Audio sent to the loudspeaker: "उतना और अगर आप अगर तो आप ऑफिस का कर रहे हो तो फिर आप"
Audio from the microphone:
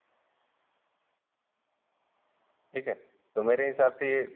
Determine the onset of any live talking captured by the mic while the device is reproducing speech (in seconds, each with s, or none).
2.7 s